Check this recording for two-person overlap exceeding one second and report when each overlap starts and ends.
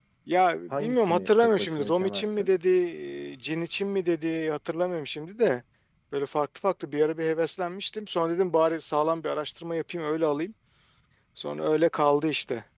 0.7-2.5

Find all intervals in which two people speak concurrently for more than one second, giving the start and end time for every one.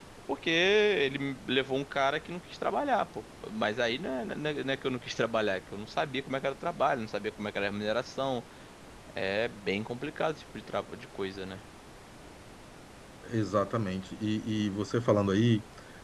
none

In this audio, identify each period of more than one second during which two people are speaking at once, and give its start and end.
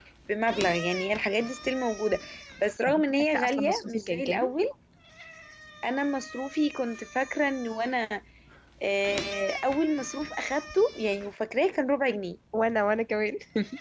2.9-4.5

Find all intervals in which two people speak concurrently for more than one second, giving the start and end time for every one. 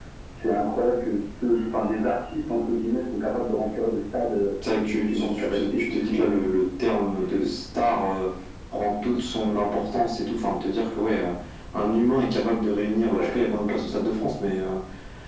4.9-6.5

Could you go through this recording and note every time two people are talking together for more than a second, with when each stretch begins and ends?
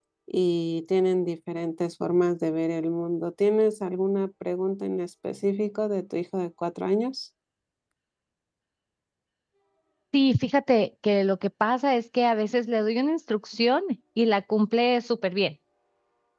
none

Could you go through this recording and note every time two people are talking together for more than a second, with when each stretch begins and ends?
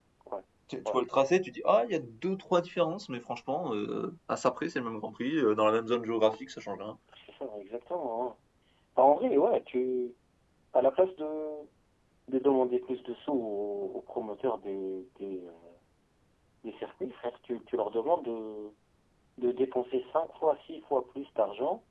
none

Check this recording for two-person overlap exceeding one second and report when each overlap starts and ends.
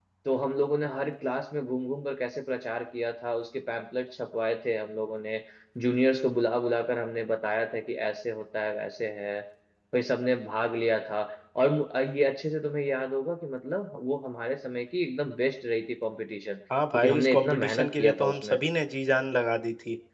16.9-18.6

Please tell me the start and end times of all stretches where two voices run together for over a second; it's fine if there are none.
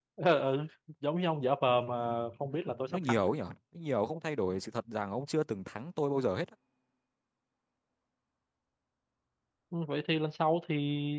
none

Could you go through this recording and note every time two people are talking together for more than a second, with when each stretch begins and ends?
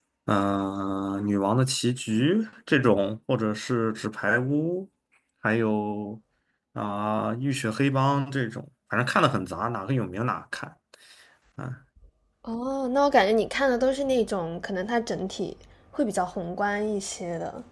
none

